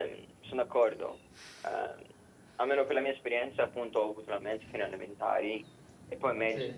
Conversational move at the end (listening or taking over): listening